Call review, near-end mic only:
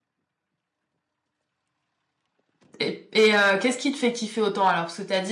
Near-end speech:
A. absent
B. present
B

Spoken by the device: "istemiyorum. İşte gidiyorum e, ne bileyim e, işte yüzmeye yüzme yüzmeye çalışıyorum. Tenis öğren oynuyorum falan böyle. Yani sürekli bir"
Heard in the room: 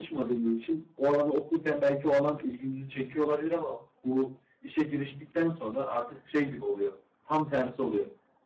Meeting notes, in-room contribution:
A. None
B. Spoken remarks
B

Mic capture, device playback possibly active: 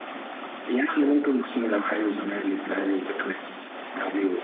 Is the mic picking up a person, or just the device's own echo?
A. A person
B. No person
B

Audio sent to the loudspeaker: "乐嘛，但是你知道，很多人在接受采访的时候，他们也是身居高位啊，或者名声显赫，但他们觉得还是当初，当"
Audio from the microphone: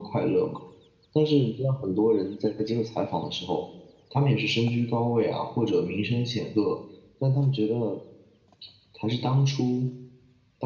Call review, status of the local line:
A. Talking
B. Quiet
B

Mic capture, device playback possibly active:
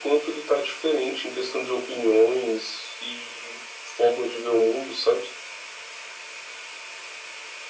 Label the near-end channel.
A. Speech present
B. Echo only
B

